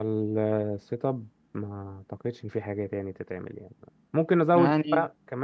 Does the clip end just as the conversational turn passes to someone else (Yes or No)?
No